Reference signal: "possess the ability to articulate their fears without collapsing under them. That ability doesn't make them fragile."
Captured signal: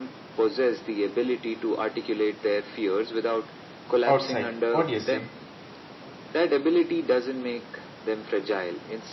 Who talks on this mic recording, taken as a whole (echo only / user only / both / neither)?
both